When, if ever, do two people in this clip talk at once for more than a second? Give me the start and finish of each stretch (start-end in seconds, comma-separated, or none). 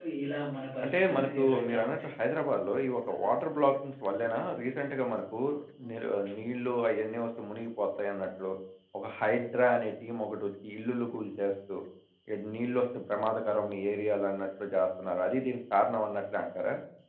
0.8-2.1